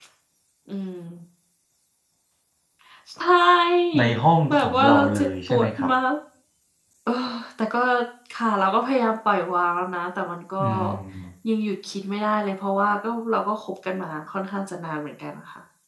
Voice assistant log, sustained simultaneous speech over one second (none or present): present